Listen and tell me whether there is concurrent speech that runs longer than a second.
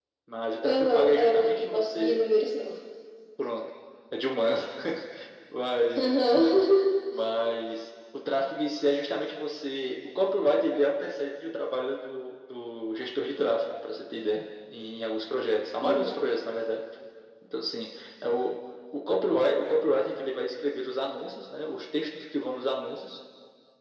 Yes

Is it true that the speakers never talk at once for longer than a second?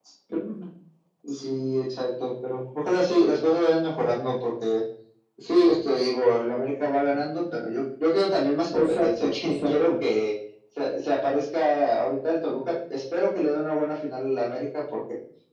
No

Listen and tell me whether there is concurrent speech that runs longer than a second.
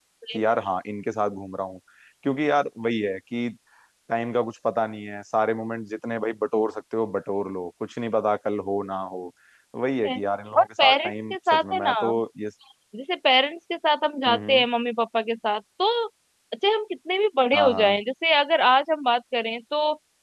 Yes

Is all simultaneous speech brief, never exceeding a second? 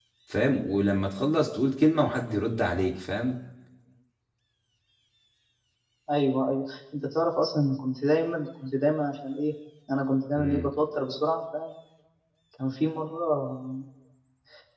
Yes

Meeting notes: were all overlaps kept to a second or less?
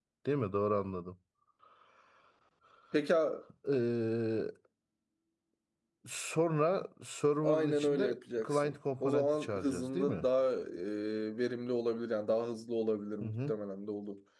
No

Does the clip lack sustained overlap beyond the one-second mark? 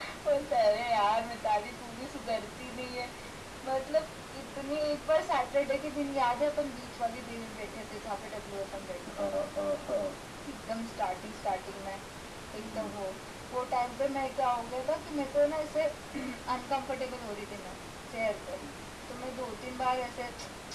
Yes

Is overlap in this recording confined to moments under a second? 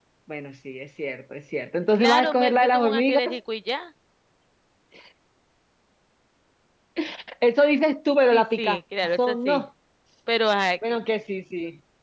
No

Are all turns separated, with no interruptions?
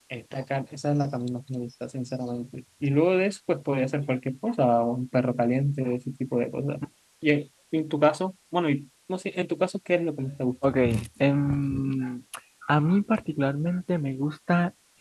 Yes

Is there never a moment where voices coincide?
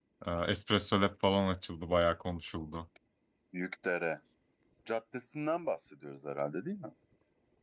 Yes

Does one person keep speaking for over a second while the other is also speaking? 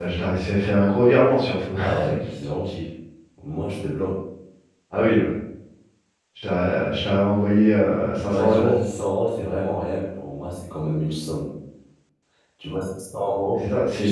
No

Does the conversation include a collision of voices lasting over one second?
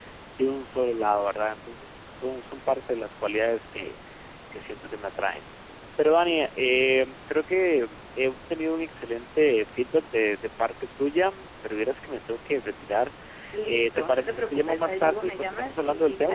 Yes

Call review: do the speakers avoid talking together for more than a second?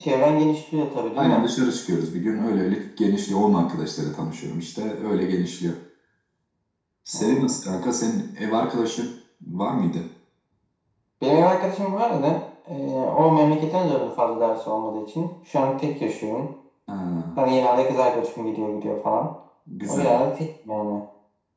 Yes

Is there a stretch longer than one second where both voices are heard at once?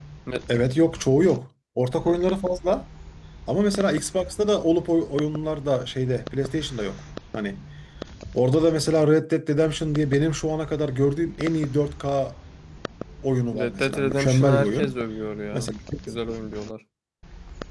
Yes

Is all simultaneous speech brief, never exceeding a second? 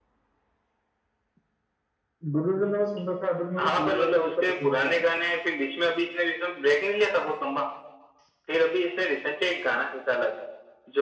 No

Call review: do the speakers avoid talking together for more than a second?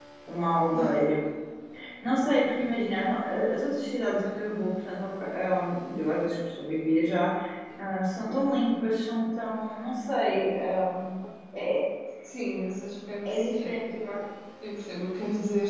Yes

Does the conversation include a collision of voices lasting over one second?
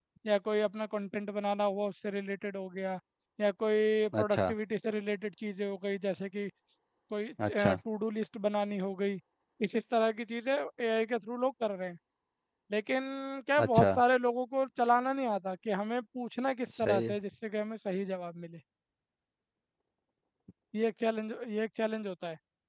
No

